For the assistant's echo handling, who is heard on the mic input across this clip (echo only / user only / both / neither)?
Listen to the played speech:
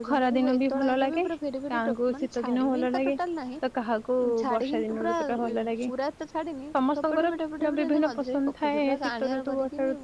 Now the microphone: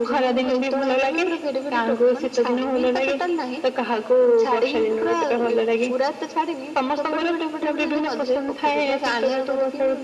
echo only